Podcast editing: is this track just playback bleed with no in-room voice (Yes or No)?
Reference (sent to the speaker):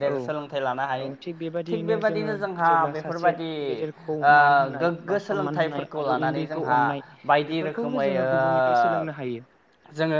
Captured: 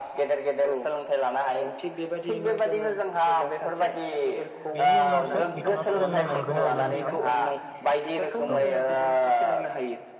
No